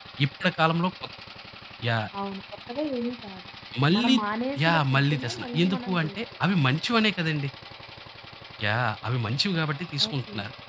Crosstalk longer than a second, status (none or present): present